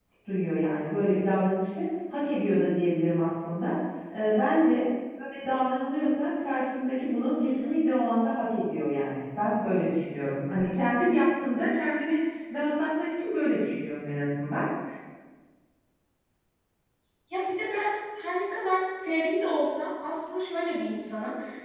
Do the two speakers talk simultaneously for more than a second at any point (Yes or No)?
No